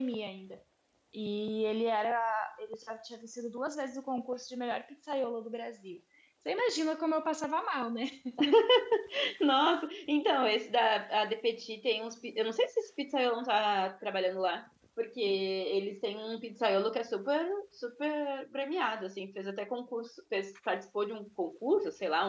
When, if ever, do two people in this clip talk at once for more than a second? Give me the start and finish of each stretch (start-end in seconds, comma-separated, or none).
none